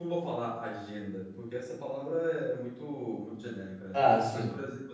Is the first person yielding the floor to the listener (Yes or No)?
No